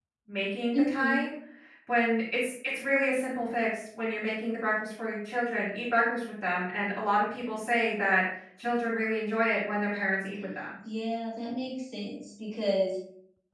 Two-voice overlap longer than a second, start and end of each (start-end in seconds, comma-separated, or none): none